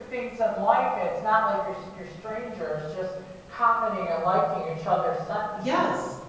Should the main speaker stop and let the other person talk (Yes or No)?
Yes